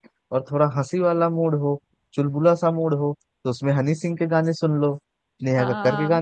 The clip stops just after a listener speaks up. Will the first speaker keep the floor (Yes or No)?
No